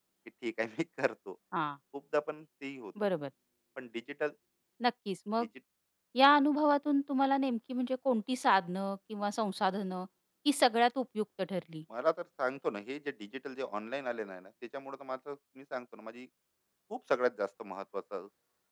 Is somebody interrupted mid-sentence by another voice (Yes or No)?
No